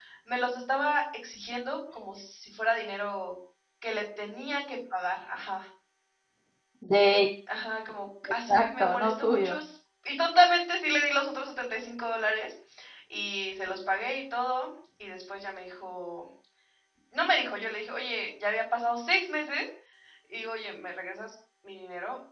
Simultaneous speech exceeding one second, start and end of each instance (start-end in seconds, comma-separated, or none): 8.2-9.6